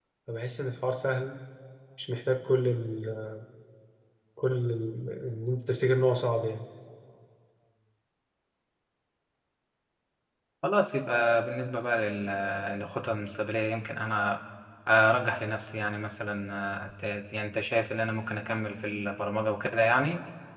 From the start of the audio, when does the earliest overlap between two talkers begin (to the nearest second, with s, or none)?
none